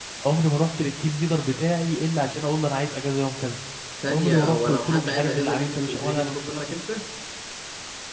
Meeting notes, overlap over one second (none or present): present